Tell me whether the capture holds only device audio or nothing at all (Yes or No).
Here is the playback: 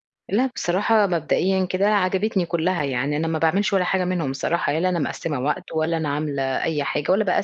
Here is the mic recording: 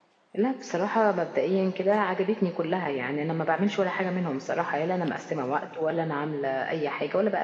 Yes